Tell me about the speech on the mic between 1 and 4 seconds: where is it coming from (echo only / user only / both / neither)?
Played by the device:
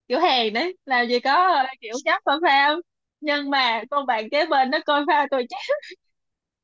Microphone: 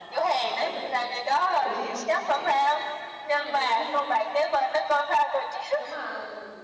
both